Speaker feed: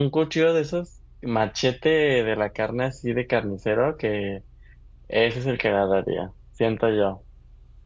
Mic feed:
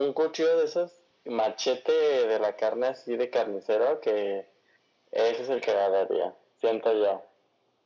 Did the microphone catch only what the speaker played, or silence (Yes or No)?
Yes